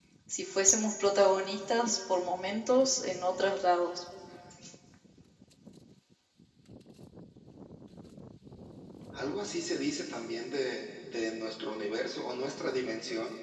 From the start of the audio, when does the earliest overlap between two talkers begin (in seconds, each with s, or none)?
none